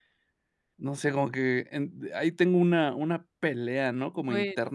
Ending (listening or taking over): listening